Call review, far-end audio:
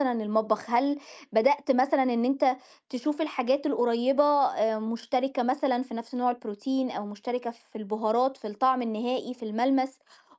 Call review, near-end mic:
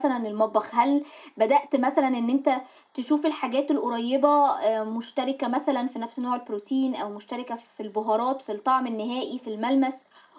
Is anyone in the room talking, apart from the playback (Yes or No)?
No